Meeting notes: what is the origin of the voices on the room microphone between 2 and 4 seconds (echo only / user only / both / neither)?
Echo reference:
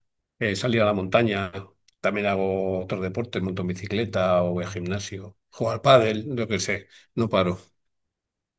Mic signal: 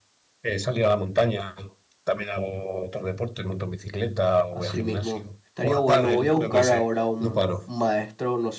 echo only